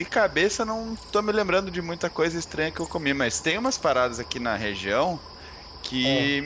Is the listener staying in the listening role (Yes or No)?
Yes